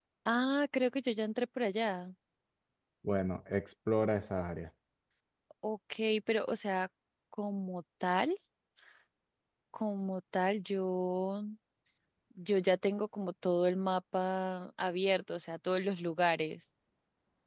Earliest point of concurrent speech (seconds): none

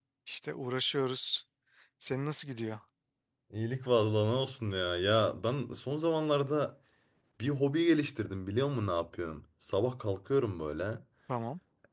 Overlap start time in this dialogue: none

